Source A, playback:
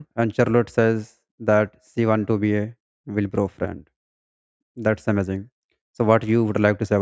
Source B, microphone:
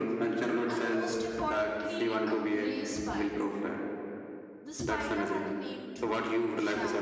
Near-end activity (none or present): present